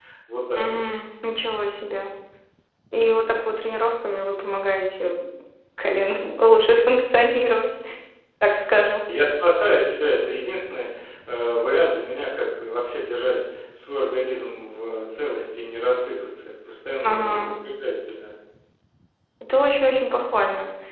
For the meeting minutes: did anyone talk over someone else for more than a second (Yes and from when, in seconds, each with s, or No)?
No